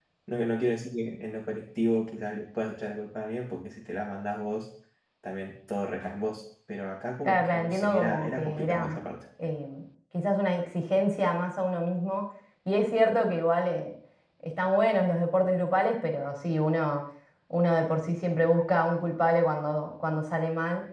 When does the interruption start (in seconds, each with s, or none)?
7.2 s